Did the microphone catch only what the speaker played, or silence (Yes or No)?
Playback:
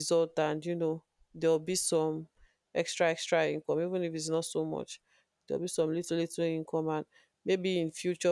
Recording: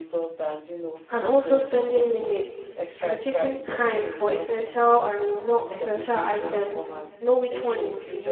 No